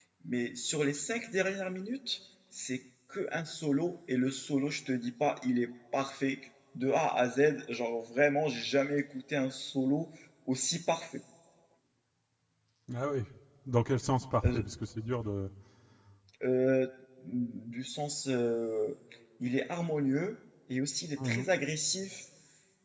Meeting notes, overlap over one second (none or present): none